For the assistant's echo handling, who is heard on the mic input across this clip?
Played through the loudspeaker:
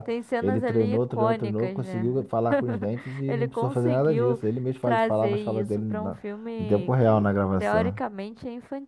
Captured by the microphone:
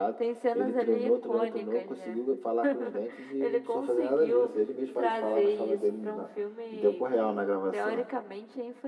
echo only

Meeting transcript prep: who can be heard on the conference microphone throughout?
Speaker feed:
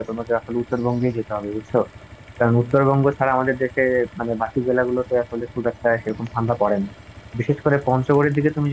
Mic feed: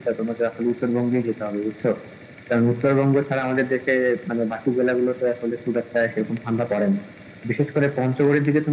echo only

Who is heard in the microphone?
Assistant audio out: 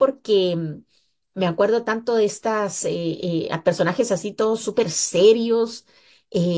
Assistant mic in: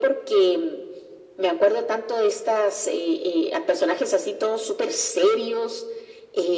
echo only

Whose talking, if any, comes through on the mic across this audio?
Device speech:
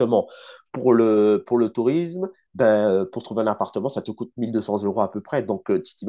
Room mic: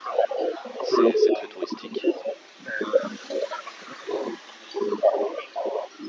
both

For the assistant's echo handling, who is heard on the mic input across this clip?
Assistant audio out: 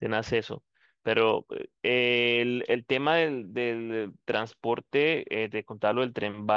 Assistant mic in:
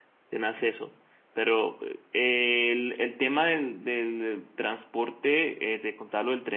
echo only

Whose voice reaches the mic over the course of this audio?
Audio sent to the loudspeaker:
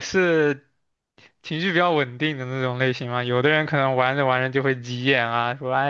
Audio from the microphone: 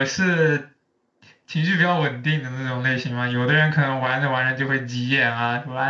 echo only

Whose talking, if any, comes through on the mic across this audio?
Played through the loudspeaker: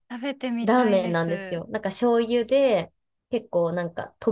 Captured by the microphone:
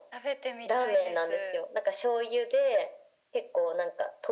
echo only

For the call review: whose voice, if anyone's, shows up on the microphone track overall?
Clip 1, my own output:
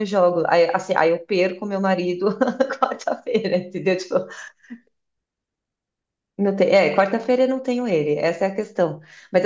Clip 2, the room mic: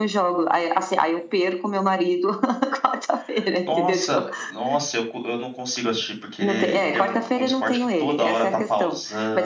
both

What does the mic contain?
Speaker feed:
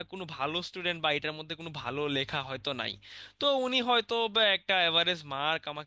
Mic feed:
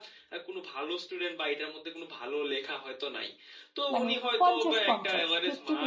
both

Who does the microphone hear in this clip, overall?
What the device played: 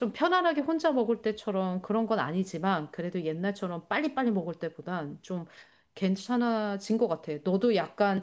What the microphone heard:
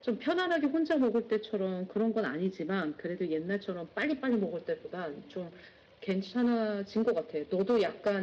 echo only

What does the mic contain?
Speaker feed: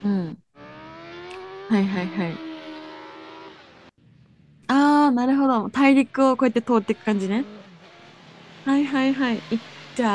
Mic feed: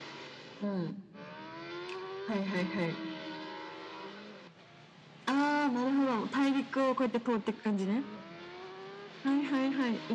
echo only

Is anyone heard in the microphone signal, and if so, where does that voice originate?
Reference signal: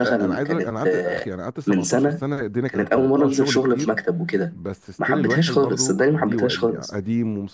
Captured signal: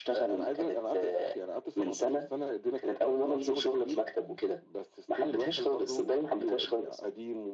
echo only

